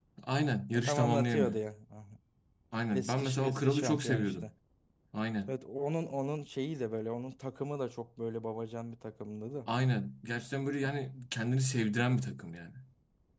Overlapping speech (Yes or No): Yes